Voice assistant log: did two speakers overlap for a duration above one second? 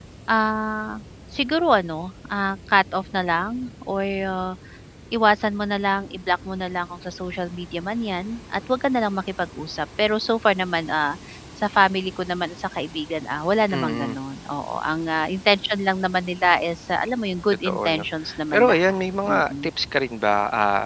Yes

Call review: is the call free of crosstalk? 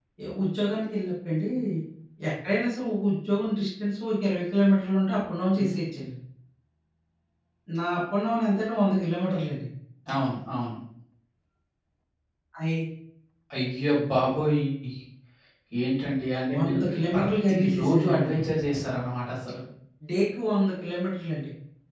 No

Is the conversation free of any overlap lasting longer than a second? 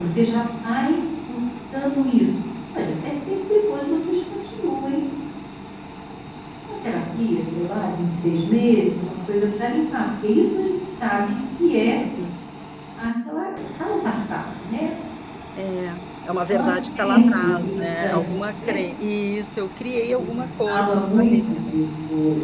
No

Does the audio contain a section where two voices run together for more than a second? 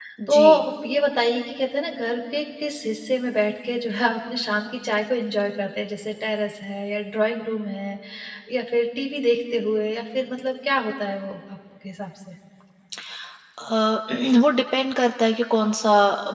No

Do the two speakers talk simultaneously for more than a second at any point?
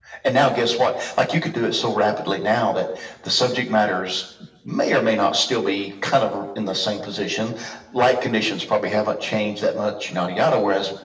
No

